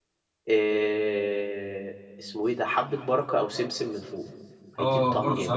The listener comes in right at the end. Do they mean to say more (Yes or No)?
Yes